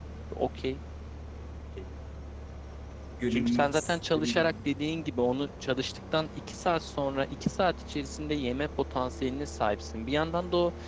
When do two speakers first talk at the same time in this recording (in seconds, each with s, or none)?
3.3 s